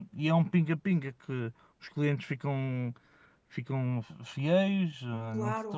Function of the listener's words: taking over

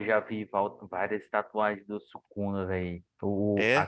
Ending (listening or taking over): listening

